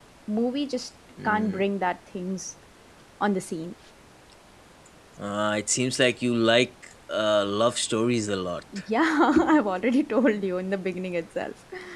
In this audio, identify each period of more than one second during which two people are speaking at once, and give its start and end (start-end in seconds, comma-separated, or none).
none